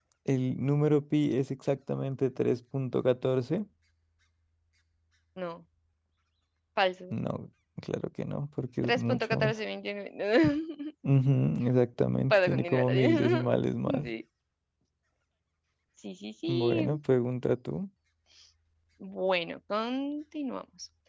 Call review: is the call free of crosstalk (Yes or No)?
No